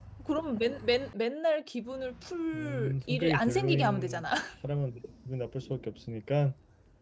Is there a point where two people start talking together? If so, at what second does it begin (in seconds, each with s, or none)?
2.5 s